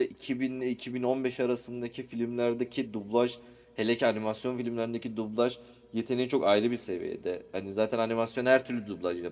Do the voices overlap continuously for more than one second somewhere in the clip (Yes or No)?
No